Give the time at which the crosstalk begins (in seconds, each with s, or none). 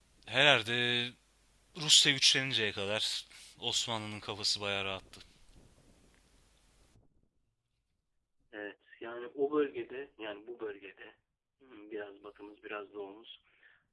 none